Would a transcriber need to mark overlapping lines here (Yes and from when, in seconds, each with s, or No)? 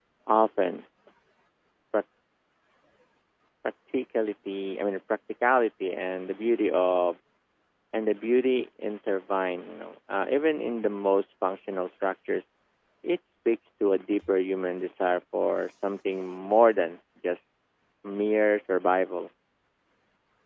No